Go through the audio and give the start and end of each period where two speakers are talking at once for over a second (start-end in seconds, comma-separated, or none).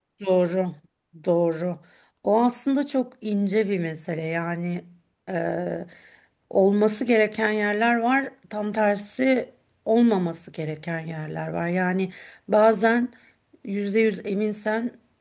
none